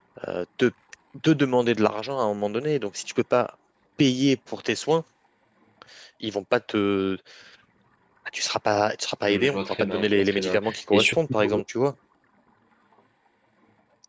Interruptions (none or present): present